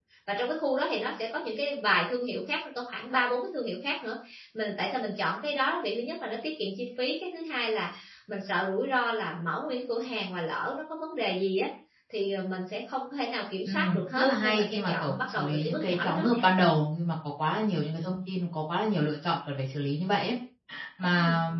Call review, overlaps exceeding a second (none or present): present